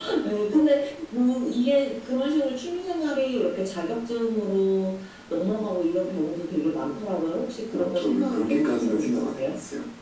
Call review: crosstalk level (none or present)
present